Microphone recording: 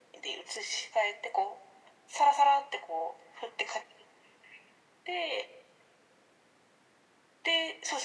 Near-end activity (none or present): none